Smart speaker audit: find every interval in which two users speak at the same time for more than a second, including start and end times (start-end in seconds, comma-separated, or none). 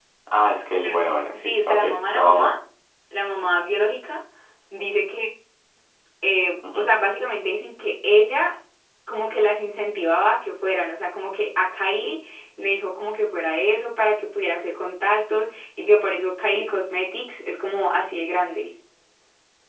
1.3-2.5